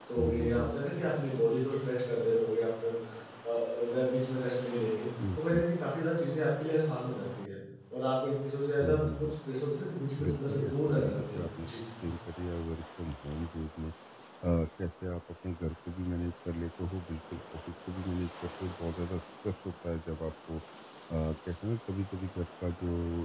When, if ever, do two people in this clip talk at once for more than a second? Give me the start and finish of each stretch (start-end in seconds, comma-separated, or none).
10.2-11.8